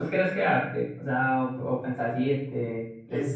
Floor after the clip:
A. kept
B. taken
B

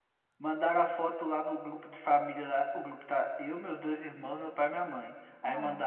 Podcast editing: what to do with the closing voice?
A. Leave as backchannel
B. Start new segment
A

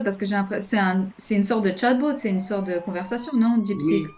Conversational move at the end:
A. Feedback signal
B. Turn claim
B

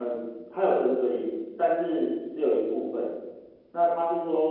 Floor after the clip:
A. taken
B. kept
B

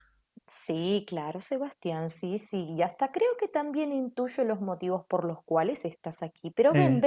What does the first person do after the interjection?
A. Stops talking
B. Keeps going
B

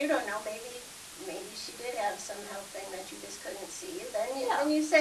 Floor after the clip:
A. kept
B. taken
A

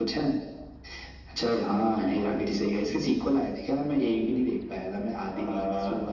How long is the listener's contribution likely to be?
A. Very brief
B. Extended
B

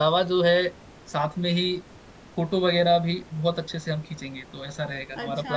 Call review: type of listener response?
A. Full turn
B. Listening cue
A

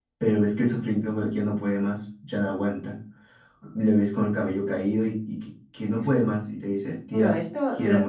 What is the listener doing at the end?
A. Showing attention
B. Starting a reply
B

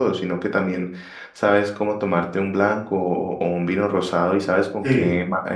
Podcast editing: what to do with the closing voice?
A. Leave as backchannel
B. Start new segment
A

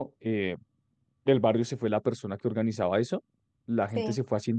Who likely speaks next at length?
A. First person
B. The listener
A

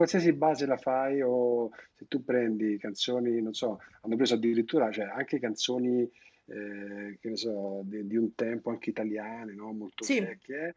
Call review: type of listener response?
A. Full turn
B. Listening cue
B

